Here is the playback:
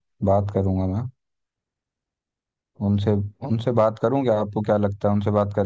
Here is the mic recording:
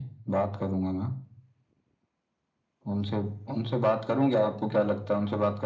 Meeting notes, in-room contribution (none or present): none